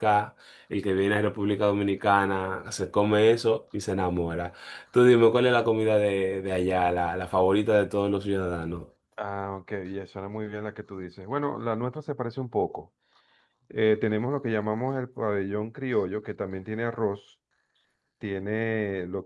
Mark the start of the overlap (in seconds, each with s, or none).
none